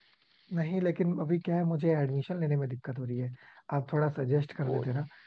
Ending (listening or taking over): listening